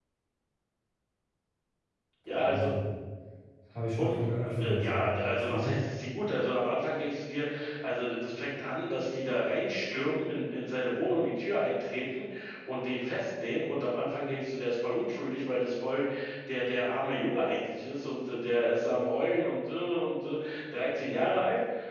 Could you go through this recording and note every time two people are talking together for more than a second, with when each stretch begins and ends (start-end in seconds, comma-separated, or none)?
4.6-5.8